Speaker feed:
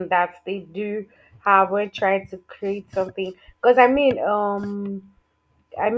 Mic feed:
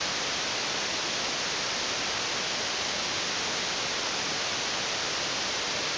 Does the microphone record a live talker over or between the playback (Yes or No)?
No